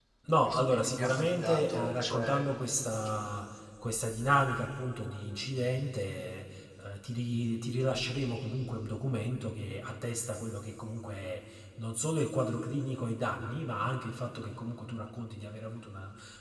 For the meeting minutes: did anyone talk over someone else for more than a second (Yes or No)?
Yes